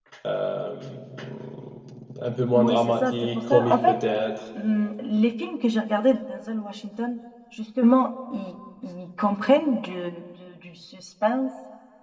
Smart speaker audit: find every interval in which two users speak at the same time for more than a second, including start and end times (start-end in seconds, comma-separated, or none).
2.5-4.0